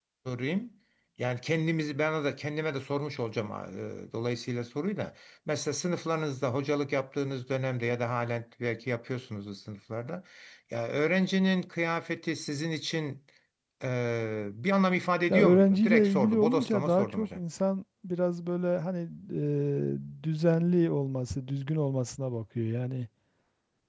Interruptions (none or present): present